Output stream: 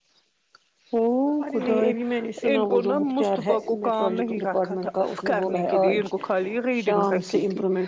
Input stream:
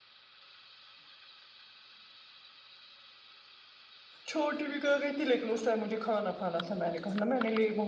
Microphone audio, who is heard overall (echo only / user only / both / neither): user only